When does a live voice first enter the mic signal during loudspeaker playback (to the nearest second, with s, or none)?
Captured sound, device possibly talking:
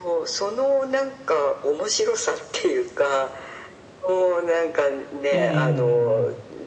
5 s